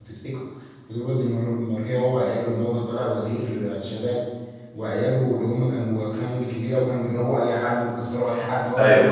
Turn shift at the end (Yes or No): No